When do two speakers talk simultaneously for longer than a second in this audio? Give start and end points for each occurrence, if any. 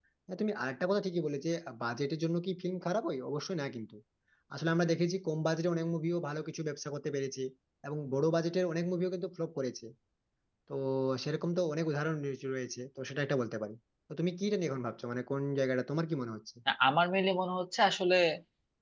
none

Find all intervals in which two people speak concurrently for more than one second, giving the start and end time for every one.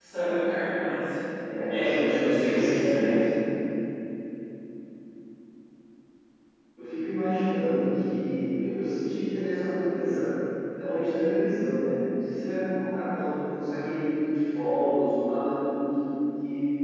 1.7-3.2

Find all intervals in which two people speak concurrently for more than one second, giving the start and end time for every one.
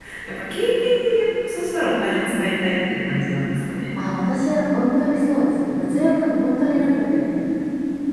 none

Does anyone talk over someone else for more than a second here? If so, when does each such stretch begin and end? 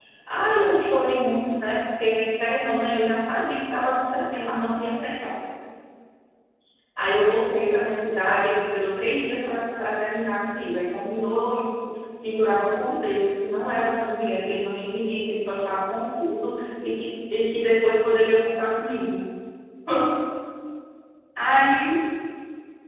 none

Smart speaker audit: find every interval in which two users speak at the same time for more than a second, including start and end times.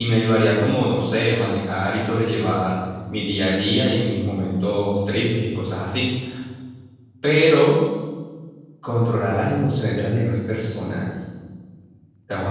none

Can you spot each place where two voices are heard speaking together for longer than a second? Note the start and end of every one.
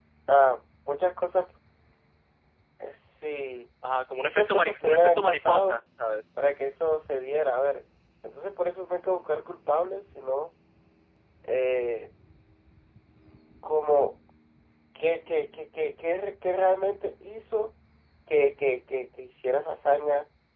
4.2-5.8

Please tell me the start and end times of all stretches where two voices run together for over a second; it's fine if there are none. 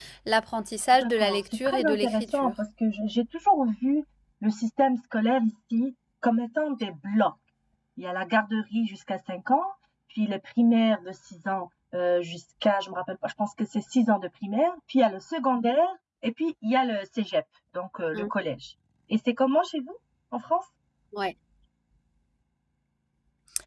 0.9-2.5

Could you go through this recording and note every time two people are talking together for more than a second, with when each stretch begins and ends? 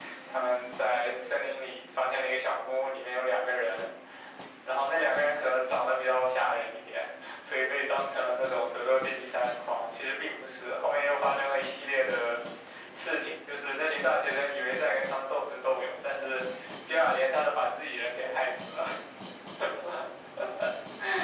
none

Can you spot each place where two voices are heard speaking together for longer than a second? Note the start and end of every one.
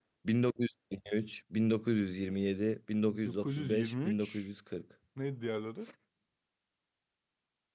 3.0-4.4

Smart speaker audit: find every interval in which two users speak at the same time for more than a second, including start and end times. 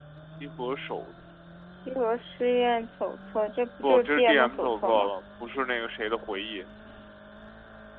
3.8-5.1

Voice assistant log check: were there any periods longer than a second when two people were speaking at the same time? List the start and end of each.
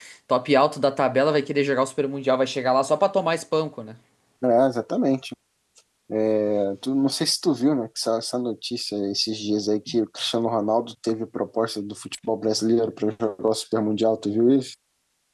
none

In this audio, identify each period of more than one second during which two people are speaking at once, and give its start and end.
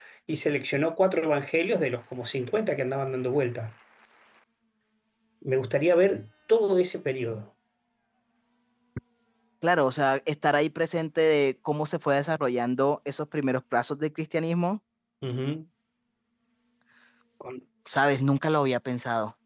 none

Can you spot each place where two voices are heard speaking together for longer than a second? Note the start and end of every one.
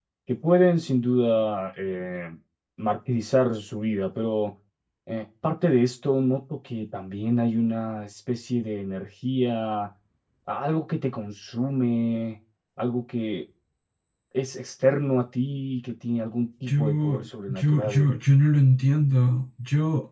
16.7-18.1

